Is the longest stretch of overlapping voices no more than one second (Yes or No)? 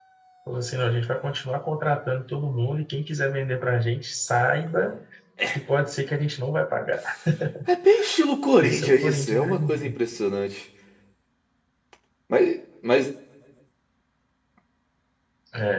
No